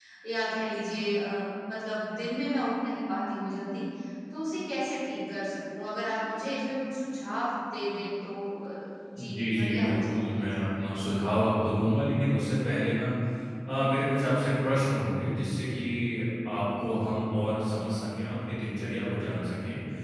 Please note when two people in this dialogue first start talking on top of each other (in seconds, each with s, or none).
9.2 s